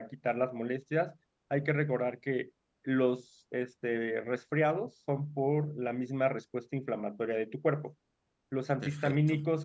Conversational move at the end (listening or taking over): listening